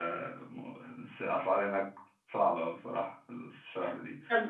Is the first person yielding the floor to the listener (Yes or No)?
No